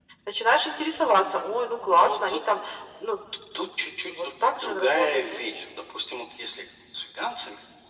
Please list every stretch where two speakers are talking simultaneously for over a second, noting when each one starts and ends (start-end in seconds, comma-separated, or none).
4.1-5.4